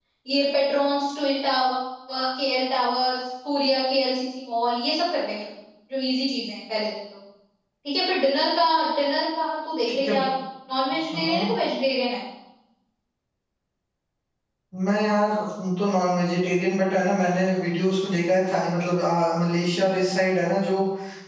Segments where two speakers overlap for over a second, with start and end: none

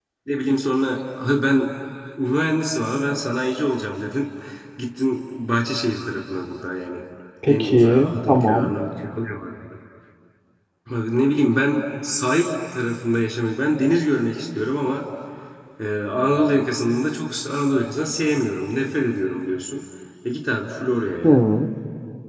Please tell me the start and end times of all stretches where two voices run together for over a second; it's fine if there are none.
7.5-8.8

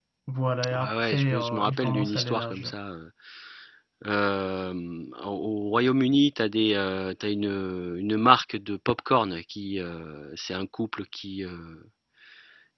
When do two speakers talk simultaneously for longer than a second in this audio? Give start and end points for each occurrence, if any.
0.7-2.7

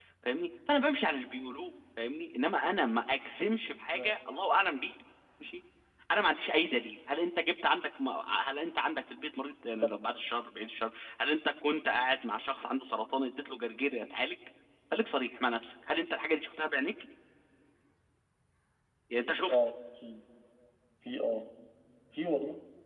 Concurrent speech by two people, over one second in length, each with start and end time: none

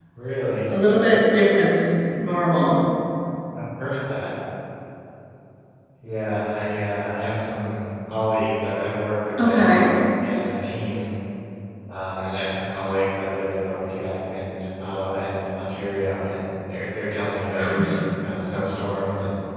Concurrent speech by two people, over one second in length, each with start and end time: none

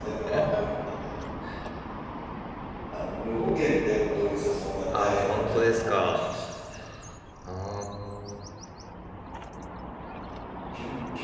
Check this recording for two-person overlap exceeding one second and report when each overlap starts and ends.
4.9-6.2

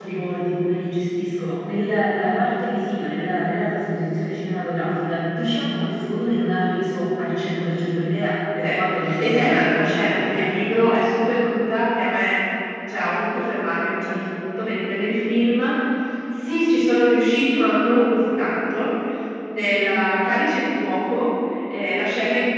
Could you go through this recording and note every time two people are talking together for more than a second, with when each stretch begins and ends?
9.2-10.5

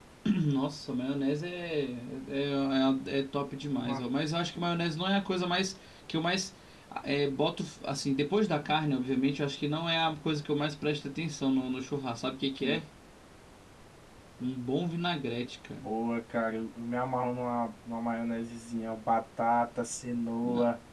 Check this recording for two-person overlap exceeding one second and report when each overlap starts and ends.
none

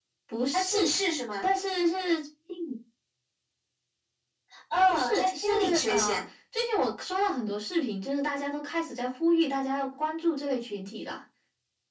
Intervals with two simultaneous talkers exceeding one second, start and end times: 4.9-6.2

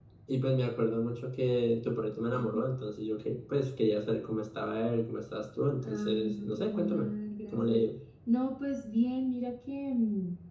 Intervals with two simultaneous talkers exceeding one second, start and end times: 5.8-7.1

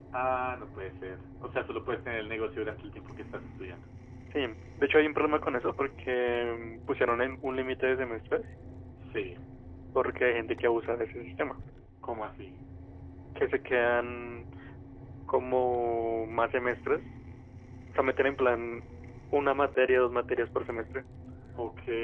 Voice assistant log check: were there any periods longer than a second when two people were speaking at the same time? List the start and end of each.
none

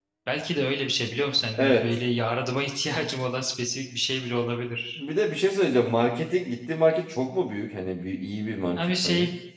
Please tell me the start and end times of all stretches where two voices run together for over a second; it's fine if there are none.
none

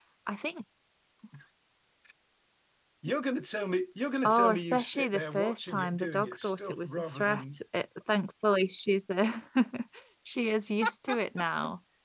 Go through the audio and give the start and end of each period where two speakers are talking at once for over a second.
4.2-7.6

